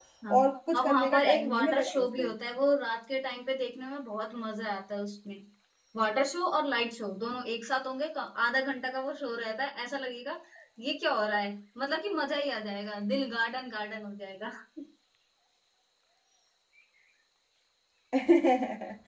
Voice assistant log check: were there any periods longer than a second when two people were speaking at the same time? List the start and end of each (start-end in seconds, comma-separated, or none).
0.8-2.1